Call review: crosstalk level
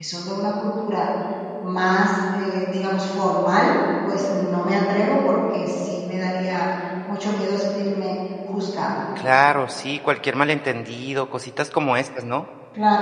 none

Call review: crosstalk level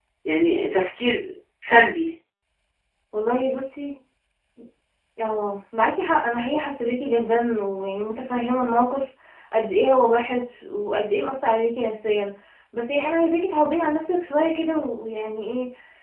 none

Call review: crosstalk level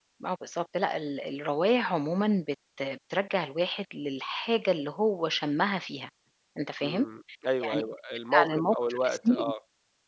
present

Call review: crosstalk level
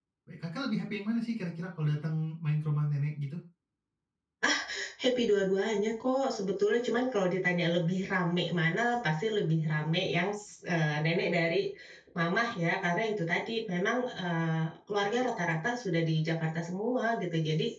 none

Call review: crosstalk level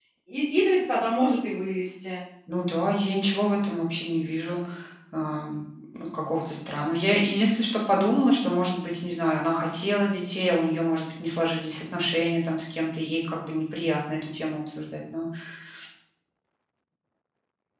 none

